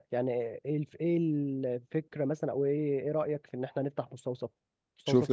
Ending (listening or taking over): taking over